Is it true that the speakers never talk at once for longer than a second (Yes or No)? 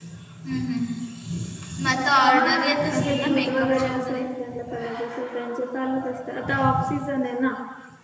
No